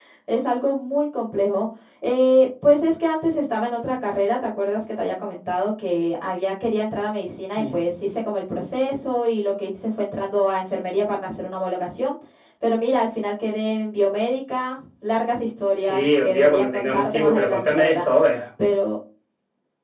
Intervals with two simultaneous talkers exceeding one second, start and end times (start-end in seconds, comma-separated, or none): 15.8-18.1